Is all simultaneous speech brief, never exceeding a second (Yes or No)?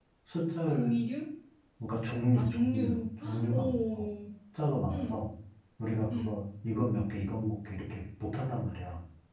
No